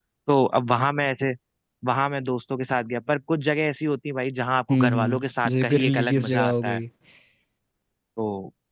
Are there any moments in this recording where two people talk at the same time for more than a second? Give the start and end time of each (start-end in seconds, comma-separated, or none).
4.7-6.8